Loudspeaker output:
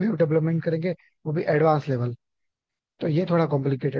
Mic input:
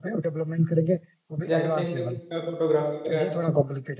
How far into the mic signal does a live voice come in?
1 s

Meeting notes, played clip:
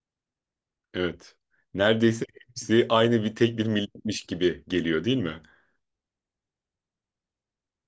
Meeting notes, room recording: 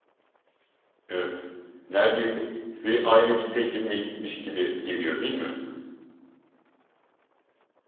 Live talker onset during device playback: none

